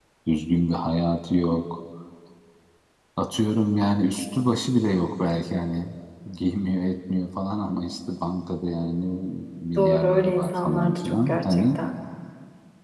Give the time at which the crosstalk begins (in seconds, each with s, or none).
9.8 s